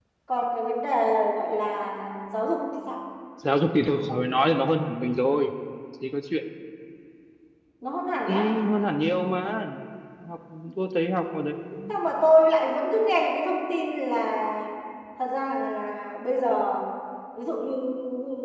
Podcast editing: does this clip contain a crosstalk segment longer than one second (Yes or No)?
No